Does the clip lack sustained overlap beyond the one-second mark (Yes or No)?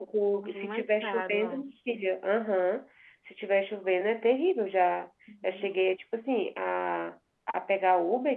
No